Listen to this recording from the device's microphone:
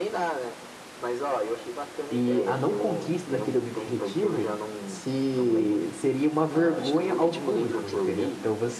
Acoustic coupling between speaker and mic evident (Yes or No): Yes